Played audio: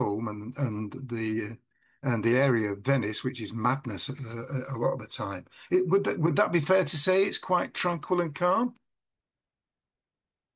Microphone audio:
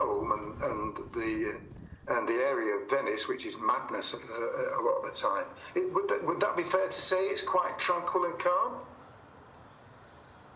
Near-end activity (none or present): none